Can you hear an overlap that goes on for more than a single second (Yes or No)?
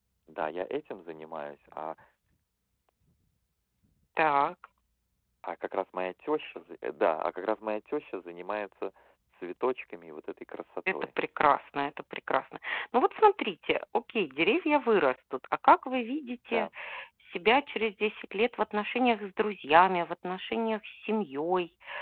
No